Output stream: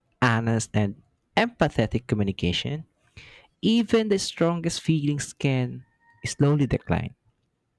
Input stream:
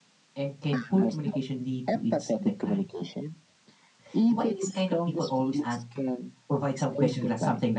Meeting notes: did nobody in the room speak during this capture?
No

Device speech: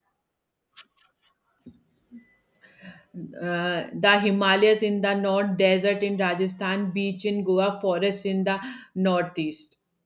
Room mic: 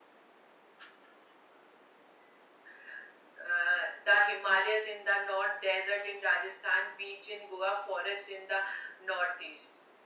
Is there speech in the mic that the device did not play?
No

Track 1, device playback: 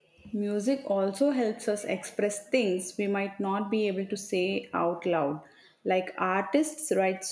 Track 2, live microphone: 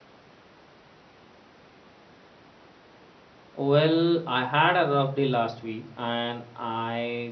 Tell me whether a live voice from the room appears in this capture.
Yes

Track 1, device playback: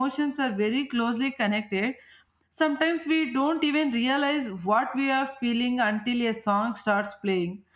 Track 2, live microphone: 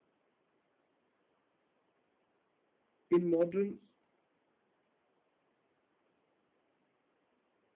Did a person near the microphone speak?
Yes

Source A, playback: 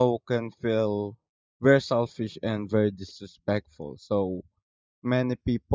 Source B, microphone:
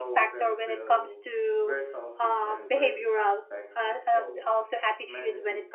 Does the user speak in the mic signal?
Yes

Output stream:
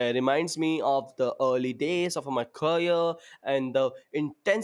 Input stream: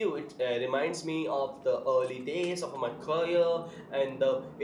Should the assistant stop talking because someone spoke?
No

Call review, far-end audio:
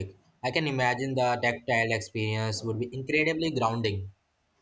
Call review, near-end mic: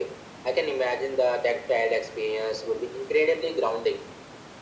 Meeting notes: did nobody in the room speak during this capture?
Yes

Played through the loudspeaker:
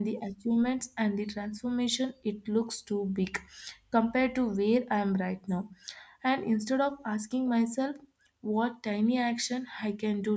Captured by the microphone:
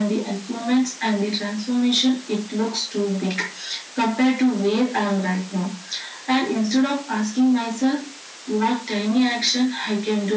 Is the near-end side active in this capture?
No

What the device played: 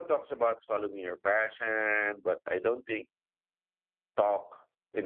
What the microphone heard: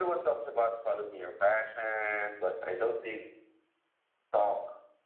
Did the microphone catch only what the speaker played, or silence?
Yes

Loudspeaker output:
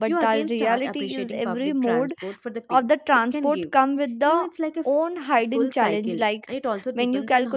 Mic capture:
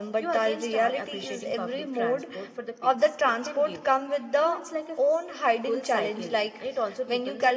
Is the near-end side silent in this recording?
Yes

